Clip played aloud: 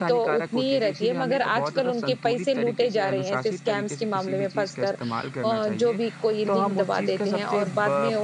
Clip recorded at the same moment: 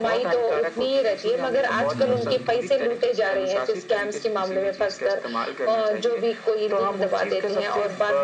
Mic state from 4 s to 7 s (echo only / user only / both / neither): echo only